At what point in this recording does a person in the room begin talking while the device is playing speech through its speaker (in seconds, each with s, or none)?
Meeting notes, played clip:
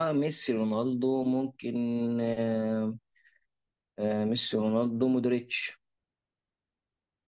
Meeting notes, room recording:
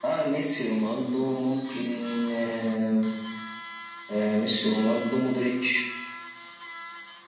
none